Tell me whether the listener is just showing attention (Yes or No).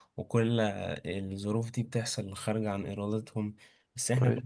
Yes